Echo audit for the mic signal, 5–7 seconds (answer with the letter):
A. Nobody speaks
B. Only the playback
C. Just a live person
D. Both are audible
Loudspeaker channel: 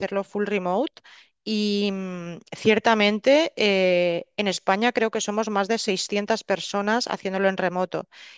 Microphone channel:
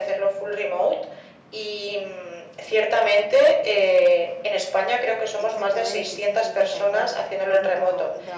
D